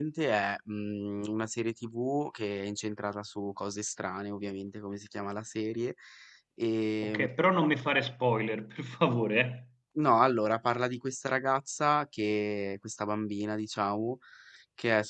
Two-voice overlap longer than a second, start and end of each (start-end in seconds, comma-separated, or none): none